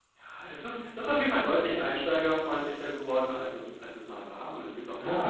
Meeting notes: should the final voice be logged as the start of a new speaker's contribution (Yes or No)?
No